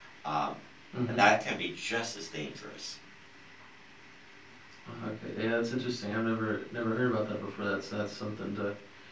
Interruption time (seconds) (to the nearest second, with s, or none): none